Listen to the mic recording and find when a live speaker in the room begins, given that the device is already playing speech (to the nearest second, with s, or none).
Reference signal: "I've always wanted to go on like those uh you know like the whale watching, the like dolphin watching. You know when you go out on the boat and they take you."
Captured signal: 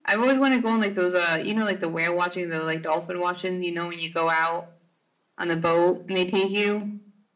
none